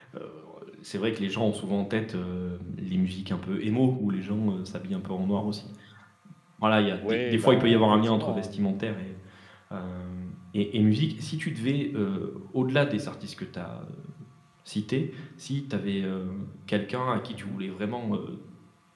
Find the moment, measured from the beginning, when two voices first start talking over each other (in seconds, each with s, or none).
7.0 s